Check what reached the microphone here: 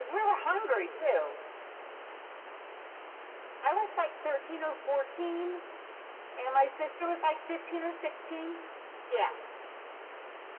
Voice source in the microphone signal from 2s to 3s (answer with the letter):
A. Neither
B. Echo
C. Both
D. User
A